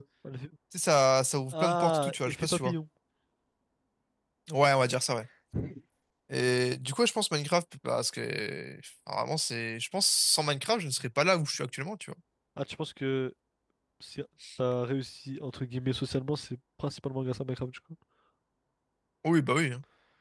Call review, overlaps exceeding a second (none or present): present